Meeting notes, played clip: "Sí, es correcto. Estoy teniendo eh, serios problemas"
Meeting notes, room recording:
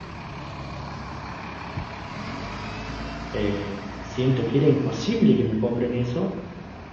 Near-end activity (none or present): present